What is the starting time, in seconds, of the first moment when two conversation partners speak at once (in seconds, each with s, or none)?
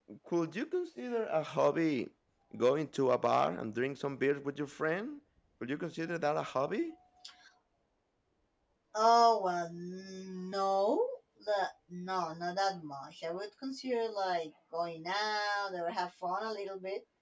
none